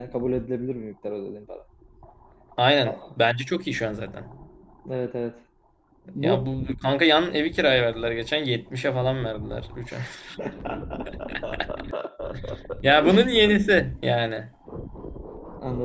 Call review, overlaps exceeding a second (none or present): none